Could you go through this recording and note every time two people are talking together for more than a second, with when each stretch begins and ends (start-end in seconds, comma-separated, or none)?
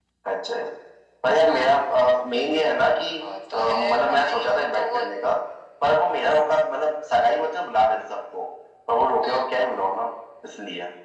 3.5-5.0